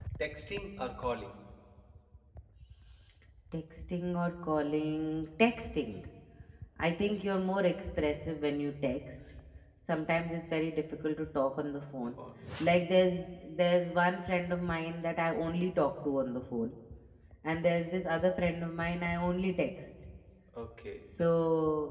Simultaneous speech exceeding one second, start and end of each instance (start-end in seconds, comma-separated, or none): none